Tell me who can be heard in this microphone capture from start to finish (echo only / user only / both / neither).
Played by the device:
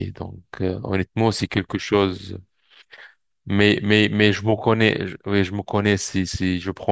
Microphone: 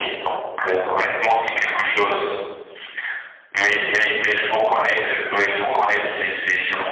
both